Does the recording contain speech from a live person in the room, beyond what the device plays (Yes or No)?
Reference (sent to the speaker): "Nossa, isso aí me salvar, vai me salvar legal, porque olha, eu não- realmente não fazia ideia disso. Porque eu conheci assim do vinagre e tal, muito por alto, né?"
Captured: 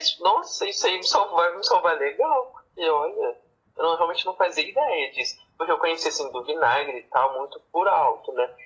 No